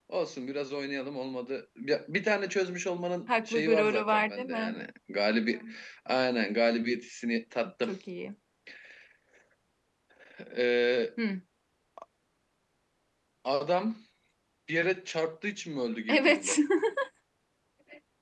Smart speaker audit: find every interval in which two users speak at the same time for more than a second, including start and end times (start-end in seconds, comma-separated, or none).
3.5-4.8